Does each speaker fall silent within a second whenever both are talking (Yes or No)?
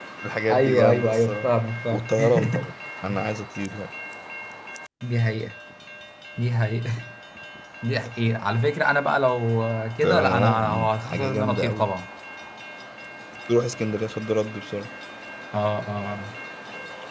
No